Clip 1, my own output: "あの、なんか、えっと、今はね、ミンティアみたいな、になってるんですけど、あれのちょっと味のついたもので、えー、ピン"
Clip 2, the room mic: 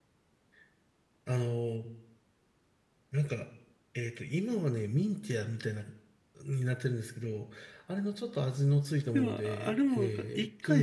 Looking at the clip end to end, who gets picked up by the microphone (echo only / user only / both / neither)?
both